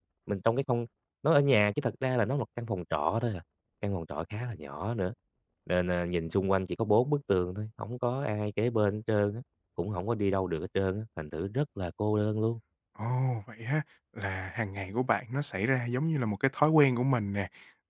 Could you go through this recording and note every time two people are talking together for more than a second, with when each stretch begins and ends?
none

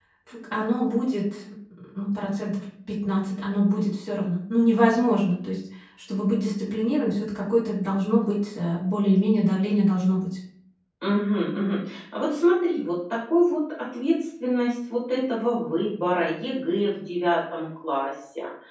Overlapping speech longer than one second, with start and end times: none

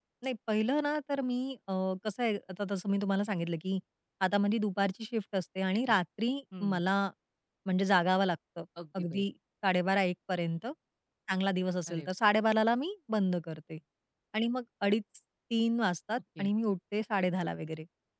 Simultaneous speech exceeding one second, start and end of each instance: none

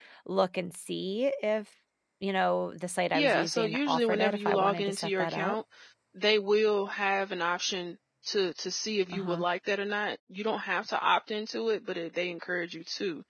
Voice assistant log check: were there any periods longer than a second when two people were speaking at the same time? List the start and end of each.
3.1-5.5

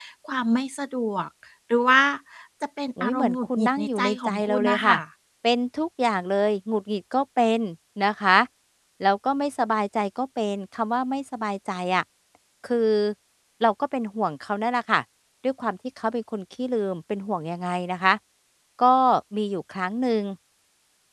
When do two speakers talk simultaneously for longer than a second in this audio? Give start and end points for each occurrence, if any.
3.0-4.9

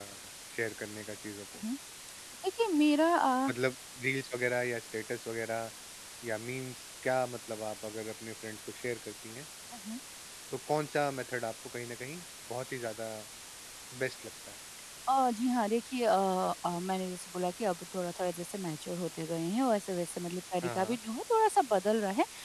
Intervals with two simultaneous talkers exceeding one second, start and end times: none

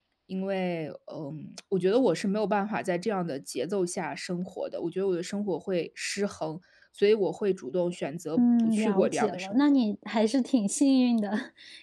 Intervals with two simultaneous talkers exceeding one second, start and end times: 8.4-9.6

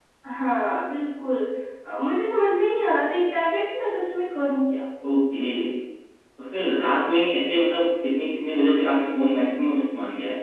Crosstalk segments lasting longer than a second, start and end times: none

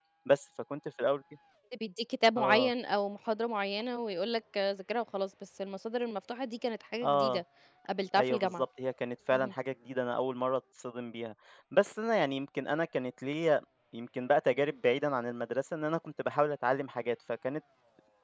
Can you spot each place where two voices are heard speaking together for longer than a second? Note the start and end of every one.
none

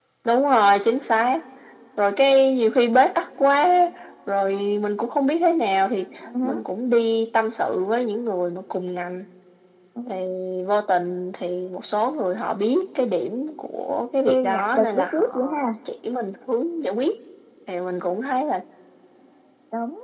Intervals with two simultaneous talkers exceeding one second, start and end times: 14.2-15.7

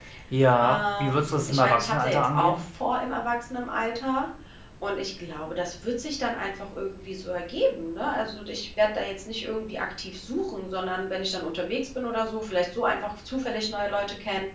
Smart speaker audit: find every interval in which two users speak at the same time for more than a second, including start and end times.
0.6-2.6

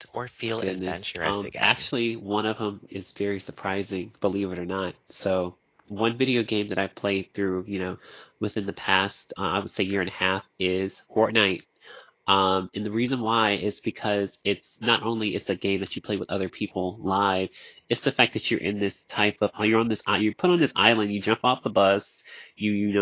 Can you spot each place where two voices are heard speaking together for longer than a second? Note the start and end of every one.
0.6-1.8

